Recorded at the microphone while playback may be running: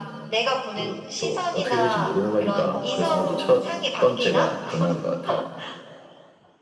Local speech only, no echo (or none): 어,